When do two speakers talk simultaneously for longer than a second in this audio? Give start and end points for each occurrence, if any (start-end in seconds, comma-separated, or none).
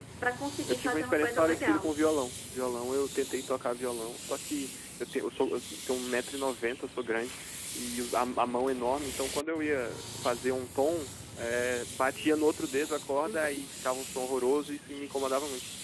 0.7-1.9